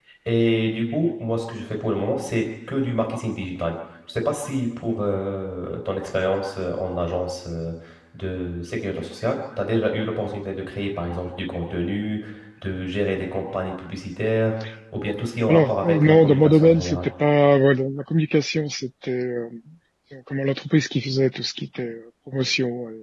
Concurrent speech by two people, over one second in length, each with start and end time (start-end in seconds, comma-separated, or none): 15.5-17.1